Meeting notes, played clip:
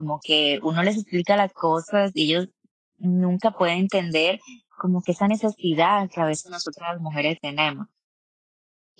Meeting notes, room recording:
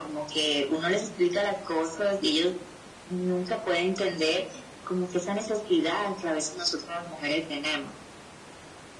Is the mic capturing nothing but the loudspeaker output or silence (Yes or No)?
Yes